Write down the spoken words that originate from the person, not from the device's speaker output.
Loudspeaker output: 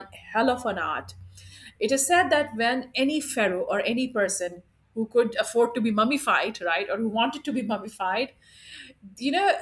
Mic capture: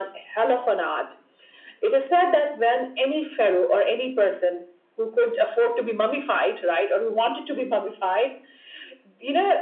none

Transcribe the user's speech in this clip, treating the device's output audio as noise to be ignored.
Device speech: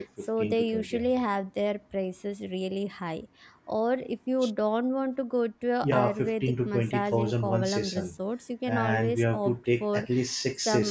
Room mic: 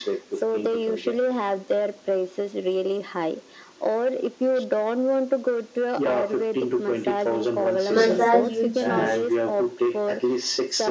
massage you choose.

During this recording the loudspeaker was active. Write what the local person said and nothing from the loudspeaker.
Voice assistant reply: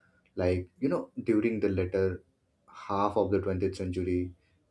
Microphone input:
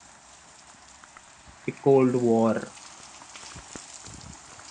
the Cold War

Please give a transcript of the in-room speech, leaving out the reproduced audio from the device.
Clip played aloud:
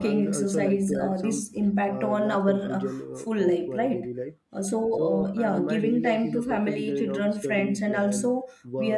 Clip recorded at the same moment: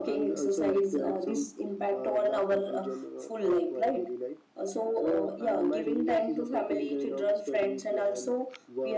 none

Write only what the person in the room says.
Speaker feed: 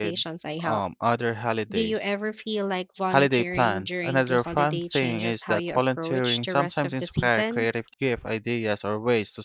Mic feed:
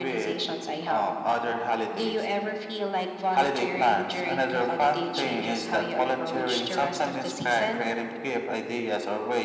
none

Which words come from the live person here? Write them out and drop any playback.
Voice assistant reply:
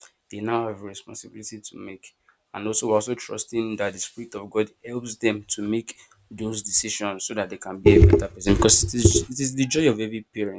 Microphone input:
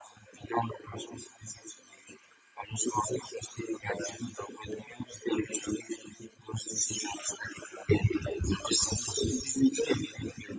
none

